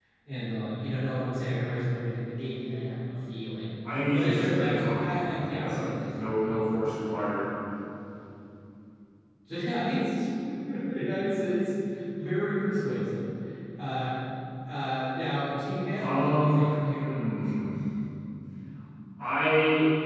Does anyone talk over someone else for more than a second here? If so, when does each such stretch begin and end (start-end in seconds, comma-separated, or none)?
4.1-6.8, 16.0-17.6